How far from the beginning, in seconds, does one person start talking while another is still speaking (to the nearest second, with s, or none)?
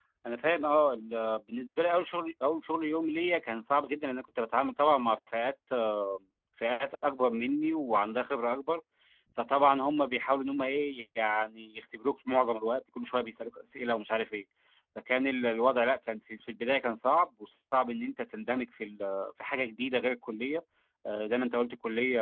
none